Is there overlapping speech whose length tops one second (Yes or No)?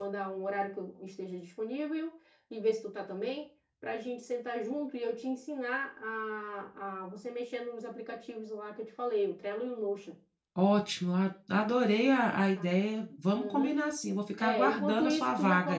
Yes